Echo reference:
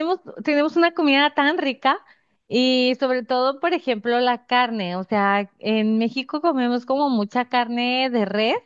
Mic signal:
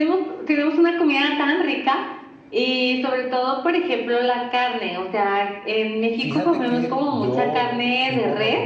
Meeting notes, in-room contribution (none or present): present